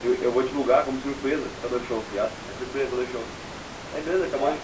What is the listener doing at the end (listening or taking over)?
listening